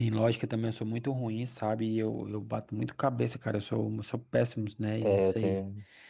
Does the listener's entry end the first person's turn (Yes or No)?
Yes